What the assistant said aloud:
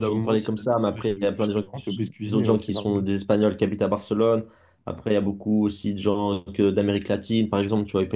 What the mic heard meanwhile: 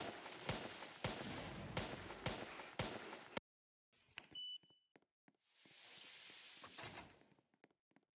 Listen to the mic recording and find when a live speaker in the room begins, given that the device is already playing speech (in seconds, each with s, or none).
none